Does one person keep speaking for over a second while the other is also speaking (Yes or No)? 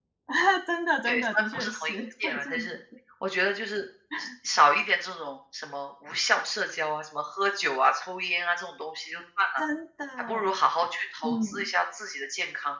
Yes